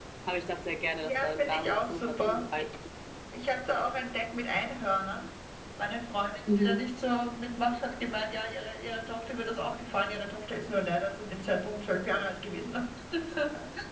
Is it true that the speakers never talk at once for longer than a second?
No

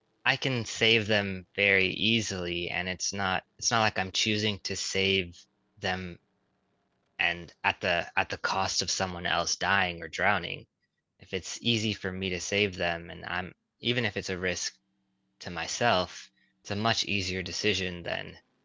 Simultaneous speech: No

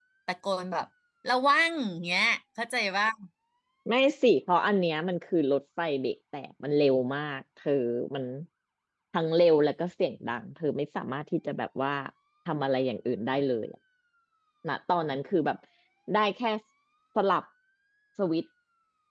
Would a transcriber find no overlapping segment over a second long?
Yes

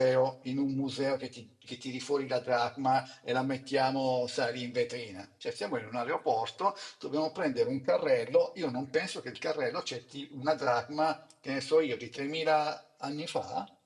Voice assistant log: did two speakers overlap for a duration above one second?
No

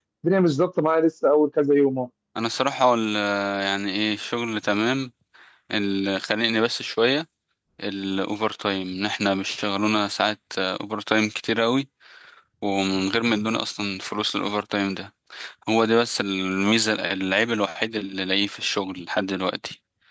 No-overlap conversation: Yes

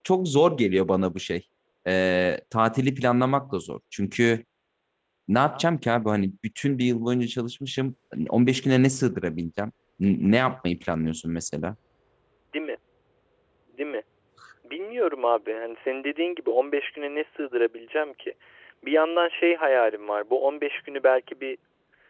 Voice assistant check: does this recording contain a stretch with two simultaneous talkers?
No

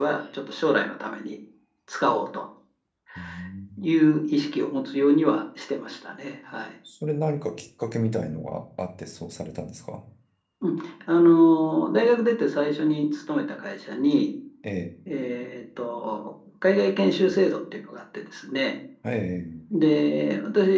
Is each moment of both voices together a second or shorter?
Yes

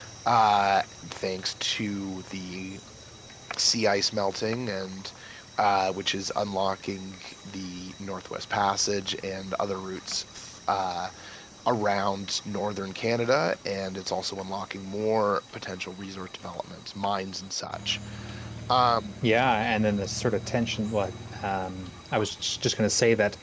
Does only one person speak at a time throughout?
Yes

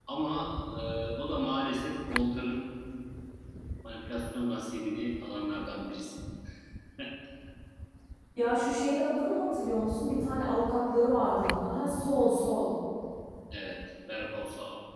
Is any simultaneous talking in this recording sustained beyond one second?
No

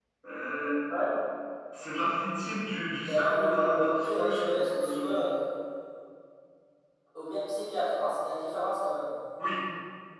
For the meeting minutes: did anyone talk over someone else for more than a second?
Yes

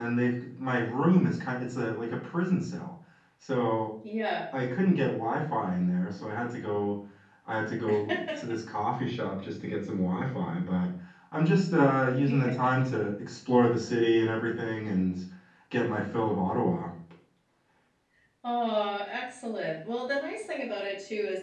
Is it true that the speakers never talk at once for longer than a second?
Yes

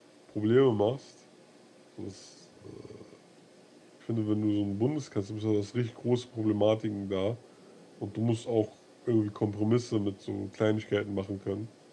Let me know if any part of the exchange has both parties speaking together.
No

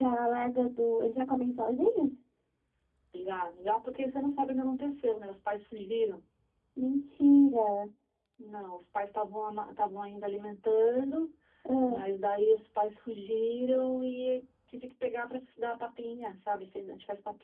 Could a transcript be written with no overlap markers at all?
Yes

